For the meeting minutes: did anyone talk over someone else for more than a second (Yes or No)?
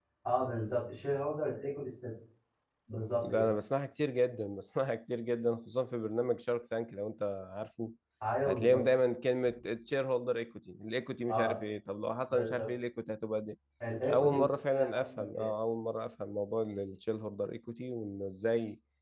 Yes